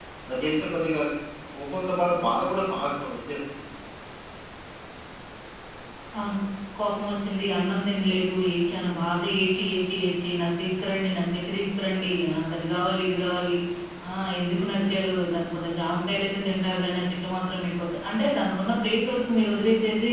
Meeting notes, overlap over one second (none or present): none